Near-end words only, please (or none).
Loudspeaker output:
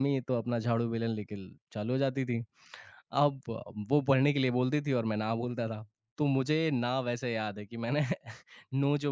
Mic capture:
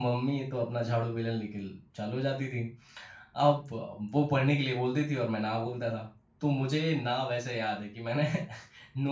none